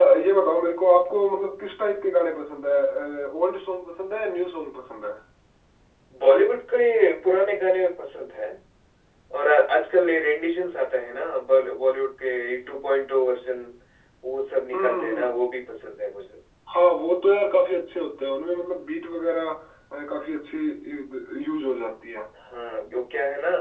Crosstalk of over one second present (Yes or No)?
No